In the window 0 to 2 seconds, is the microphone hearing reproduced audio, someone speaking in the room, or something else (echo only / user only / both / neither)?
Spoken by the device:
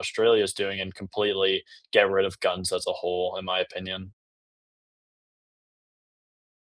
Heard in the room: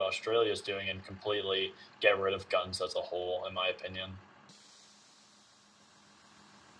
echo only